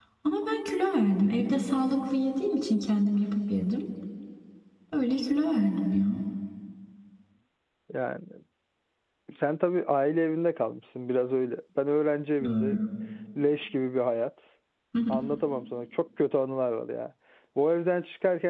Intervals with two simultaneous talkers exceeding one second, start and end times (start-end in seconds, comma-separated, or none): none